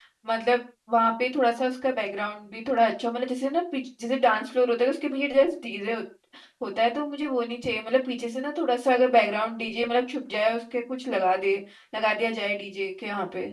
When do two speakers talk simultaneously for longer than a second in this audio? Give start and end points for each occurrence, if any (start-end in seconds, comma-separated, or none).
none